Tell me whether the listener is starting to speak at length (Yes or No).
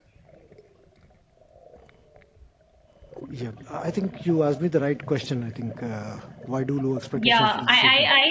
Yes